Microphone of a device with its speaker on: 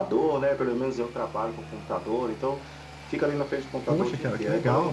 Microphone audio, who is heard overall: both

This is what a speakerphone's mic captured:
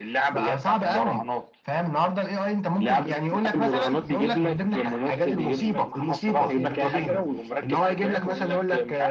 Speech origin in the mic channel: both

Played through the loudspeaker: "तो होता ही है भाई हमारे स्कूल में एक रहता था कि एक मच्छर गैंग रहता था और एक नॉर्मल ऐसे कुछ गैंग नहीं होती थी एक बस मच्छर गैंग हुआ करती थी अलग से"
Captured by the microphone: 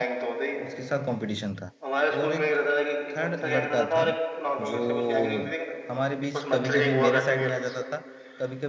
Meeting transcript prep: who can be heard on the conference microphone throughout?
both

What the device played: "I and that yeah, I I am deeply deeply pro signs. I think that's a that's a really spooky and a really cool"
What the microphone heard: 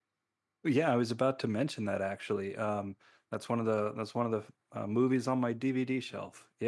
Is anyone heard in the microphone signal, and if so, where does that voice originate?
user only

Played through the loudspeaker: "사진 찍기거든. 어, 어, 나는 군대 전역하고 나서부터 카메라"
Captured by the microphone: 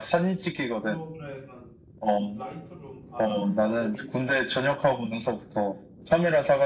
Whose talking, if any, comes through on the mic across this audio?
both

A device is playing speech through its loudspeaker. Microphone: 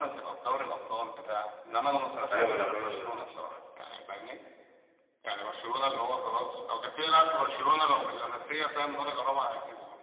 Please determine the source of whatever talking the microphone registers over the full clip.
both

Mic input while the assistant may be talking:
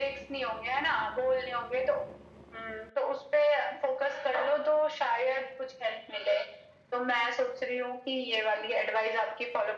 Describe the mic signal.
echo only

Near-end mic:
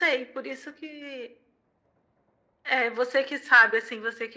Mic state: echo only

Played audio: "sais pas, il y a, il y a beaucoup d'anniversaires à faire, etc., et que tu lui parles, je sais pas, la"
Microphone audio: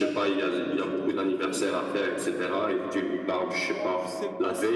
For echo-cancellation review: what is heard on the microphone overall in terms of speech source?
both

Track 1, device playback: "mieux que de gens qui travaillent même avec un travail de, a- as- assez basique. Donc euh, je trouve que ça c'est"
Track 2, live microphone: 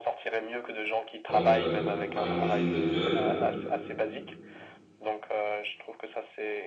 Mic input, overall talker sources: both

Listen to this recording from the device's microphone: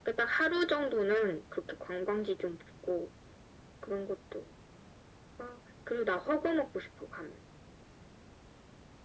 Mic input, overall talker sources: echo only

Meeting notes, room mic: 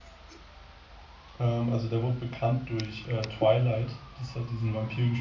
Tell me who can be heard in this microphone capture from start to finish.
user only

